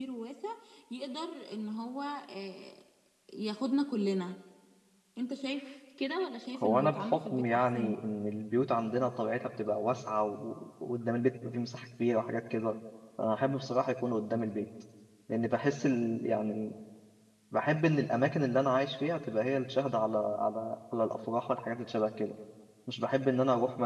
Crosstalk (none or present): present